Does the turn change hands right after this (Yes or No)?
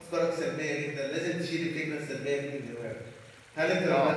No